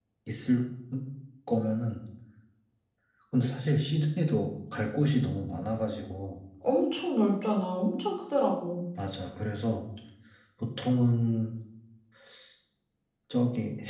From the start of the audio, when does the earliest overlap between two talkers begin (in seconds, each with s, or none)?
none